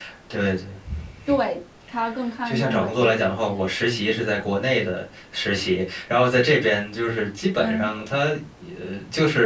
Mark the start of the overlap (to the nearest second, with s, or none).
2 s